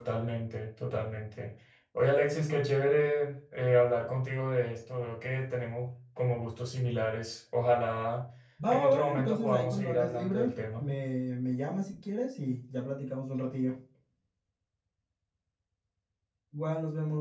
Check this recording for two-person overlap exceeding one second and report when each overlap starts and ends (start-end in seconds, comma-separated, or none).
8.7-10.9